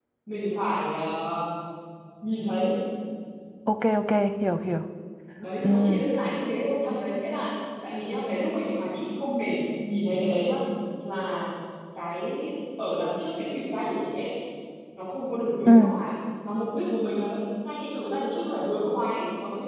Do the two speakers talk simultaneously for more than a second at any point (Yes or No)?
No